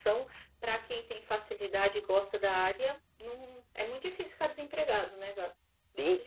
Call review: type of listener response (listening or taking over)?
taking over